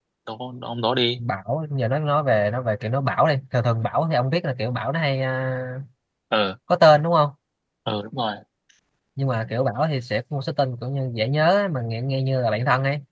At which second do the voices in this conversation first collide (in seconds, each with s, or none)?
none